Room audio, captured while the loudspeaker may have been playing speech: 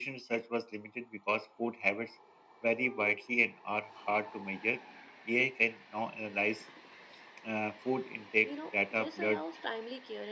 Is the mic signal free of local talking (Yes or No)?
No